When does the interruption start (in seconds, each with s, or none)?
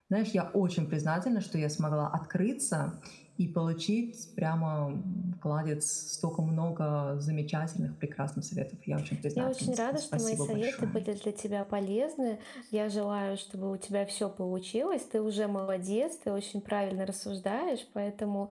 9.4 s